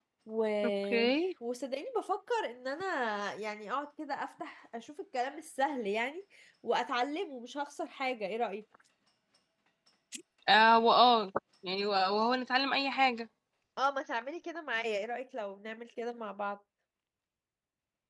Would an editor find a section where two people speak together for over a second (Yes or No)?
No